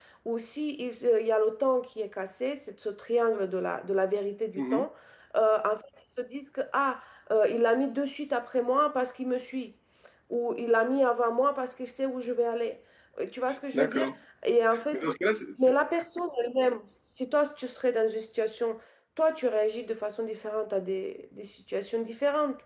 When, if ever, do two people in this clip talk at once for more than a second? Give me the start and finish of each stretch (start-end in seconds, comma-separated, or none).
none